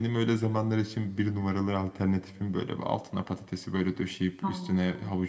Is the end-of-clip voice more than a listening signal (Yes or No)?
No